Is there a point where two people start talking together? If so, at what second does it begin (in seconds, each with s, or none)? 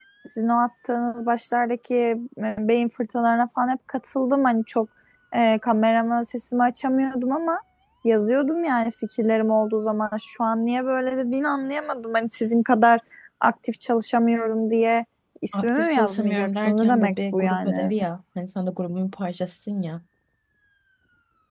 15.5 s